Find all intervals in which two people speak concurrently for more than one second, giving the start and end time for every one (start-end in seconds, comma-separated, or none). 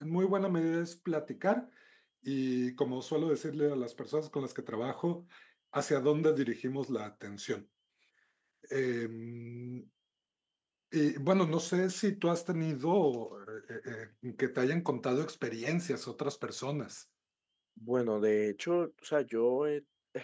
none